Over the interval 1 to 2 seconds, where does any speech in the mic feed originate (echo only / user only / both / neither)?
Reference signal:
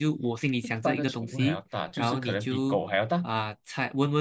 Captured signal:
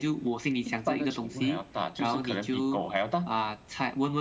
echo only